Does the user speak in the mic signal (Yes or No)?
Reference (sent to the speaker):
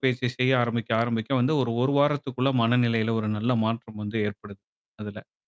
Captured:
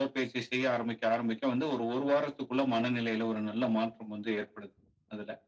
No